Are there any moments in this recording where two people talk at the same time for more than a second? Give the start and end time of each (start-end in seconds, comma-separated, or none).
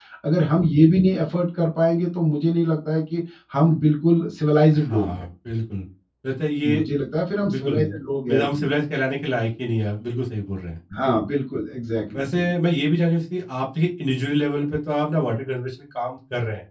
none